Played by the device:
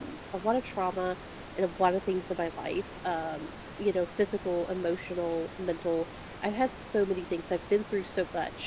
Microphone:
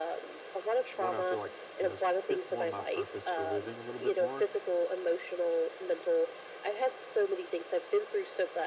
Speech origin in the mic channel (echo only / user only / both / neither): both